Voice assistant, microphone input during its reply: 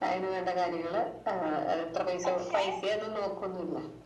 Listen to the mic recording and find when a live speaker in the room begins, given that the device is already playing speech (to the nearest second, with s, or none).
2 s